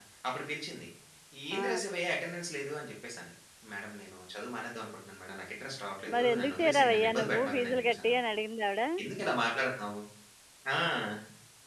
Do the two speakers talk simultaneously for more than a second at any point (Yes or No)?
Yes